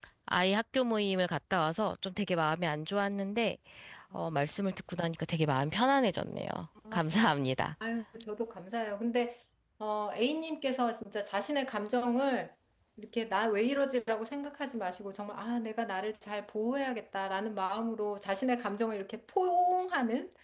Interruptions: none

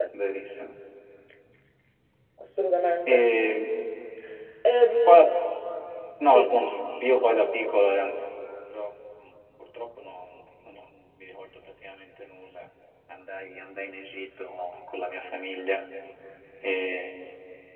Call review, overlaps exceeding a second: none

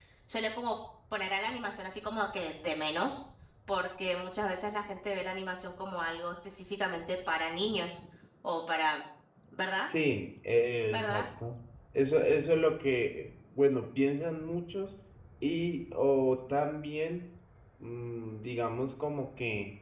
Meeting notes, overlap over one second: none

